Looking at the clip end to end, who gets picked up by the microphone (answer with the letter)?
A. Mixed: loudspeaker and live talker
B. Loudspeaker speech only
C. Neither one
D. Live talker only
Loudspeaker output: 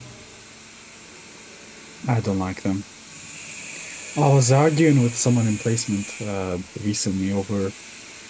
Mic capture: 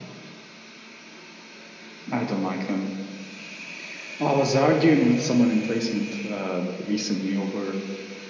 B